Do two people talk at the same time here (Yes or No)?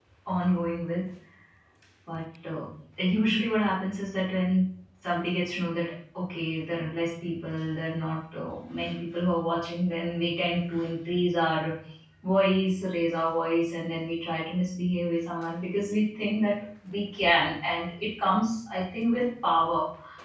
No